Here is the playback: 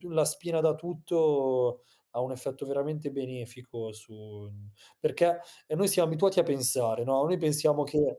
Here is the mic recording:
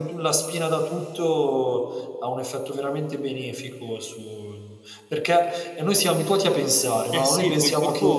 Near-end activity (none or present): present